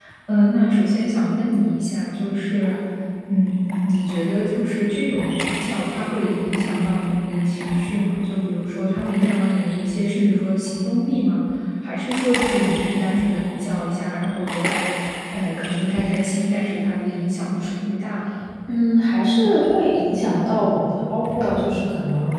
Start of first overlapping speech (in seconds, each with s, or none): none